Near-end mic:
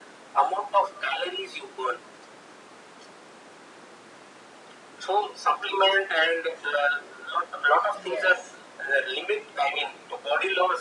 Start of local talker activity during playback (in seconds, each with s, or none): 8.0 s